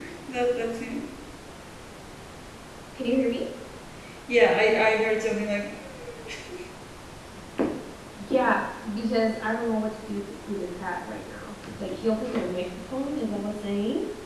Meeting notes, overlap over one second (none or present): none